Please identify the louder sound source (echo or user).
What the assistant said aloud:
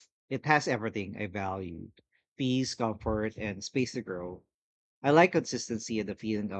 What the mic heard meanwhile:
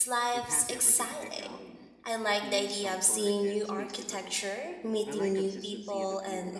user